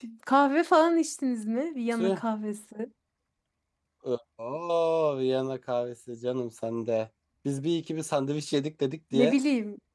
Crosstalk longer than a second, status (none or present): none